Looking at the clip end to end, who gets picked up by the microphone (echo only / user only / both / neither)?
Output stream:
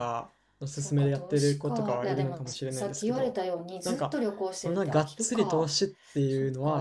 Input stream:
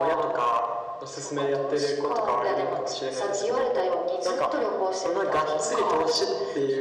echo only